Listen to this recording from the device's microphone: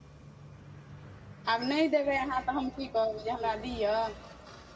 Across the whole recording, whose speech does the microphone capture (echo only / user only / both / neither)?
user only